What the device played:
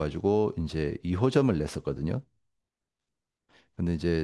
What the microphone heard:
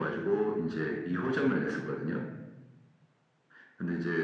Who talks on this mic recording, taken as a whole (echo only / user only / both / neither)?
echo only